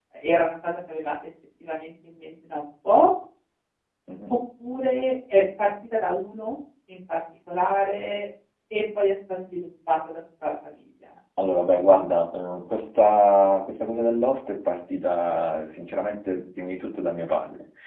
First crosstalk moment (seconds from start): none

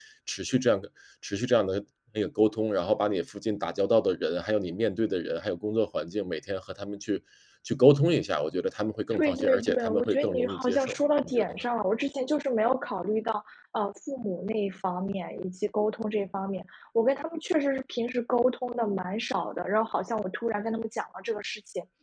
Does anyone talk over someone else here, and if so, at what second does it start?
9.1 s

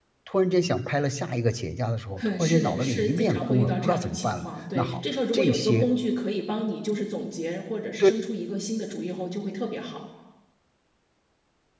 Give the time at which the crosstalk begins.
2.2 s

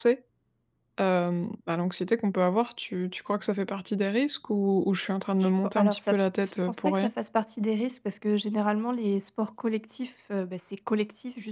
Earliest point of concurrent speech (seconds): 5.4 s

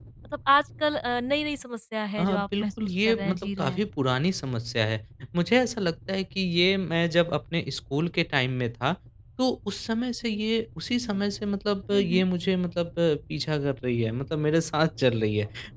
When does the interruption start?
2.2 s

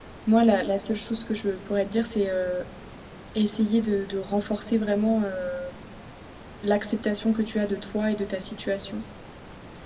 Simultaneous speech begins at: none

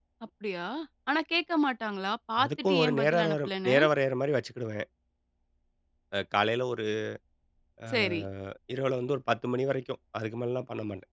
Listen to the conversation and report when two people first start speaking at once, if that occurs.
2.4 s

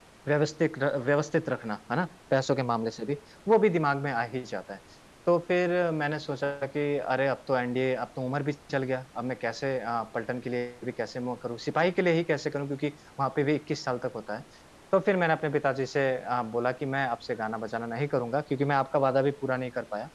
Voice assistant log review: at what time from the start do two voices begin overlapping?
none

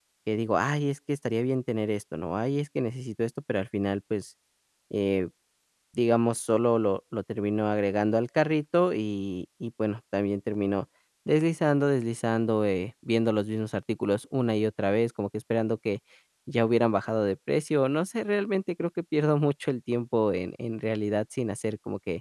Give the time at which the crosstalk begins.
none

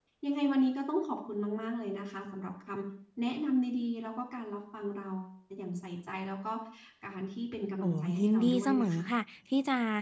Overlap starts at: 7.8 s

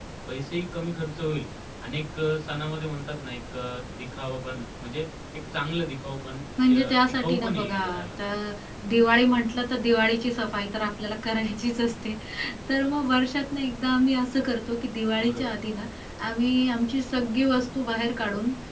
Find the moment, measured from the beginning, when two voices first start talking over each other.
6.7 s

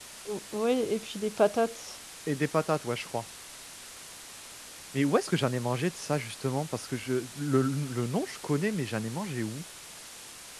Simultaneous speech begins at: none

